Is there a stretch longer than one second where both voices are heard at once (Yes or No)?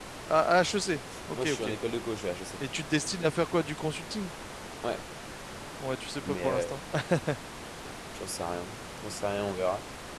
No